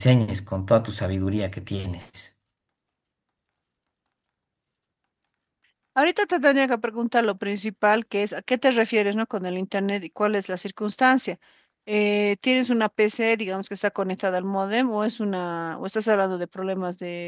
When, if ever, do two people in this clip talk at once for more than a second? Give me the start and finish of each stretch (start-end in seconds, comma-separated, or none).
none